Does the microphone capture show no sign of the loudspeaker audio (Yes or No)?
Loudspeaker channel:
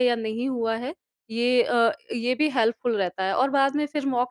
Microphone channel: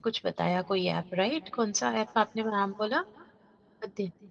Yes